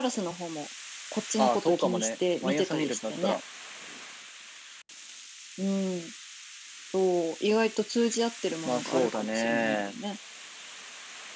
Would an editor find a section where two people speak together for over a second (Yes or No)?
Yes